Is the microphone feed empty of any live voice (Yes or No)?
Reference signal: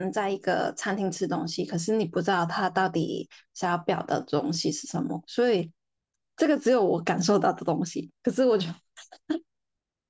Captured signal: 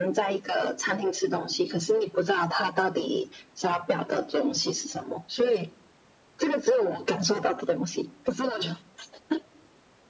Yes